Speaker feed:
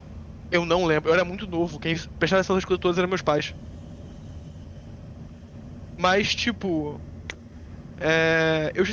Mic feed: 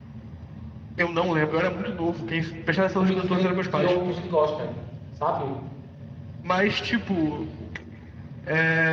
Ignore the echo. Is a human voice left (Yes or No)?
Yes